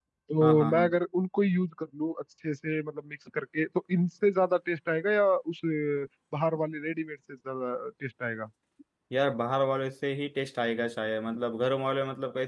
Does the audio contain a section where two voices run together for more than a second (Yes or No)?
No